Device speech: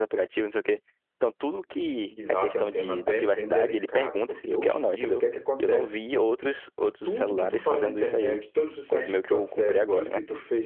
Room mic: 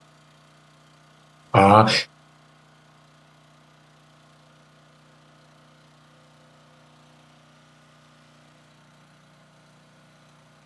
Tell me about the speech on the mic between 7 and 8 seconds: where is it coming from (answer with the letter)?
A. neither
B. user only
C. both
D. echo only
A